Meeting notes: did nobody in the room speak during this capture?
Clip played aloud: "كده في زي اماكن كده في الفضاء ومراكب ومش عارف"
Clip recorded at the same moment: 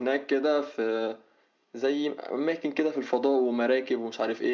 Yes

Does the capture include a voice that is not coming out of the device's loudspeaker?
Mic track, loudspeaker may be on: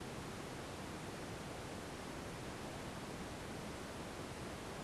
No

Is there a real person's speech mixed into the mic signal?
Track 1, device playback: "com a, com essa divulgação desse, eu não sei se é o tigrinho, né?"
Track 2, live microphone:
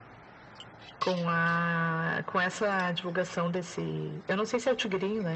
No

